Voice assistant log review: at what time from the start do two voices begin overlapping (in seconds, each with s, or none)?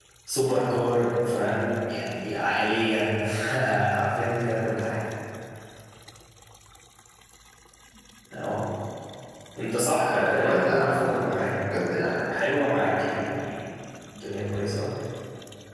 10.1 s